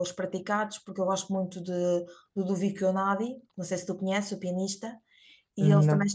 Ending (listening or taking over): listening